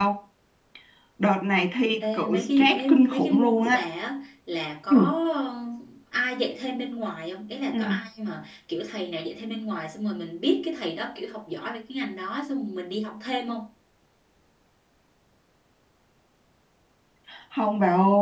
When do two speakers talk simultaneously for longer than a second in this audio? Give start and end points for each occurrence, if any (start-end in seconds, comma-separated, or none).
2.1-3.9